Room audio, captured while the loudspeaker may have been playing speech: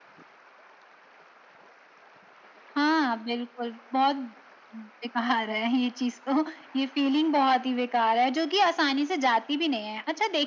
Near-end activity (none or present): none